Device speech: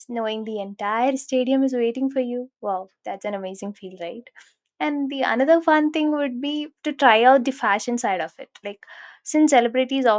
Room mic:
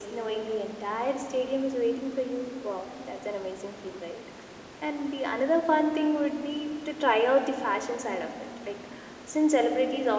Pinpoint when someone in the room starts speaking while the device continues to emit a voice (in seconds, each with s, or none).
none